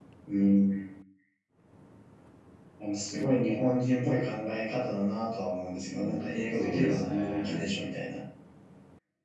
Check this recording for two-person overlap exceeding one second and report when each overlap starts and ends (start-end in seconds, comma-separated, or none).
5.8-7.6